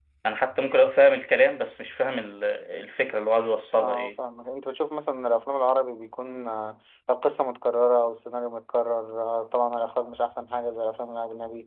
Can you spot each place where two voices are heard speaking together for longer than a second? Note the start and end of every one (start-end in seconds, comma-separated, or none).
none